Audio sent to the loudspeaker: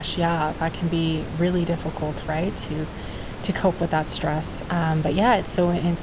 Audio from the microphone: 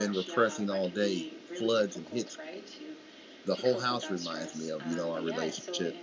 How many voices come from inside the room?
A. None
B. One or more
B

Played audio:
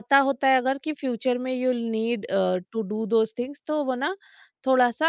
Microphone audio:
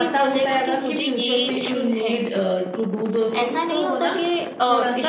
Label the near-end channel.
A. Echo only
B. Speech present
B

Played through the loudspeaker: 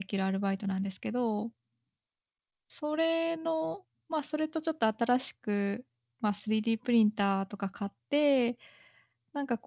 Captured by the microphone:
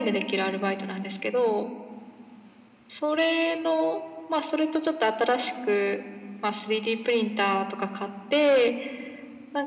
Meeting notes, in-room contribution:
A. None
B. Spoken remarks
A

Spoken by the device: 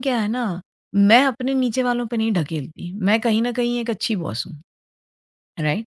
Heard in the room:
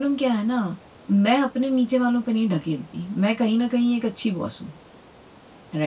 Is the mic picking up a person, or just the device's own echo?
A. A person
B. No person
B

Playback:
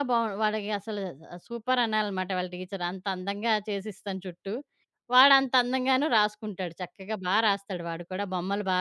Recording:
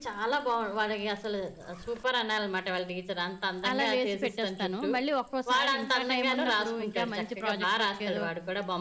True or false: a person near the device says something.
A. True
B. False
A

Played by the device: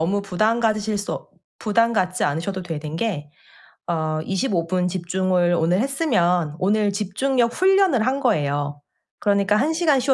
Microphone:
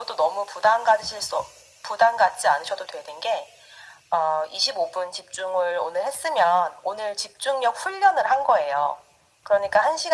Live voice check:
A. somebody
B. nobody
B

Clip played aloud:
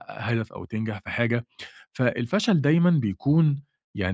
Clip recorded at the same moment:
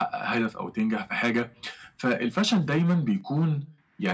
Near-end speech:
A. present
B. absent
B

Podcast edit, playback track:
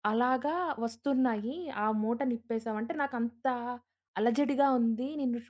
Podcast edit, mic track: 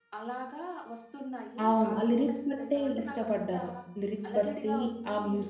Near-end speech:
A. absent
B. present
B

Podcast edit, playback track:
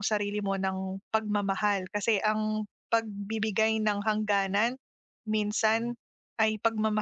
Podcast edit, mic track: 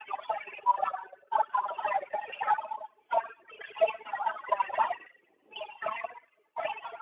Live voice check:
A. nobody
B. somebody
A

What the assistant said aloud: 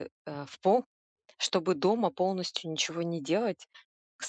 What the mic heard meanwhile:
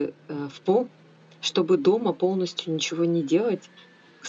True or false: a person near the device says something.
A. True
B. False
B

